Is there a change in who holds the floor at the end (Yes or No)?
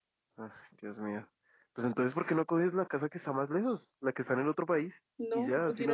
Yes